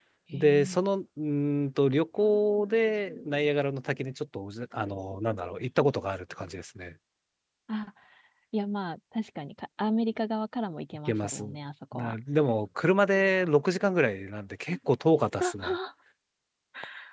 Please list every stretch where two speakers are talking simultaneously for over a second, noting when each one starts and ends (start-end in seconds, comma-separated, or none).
none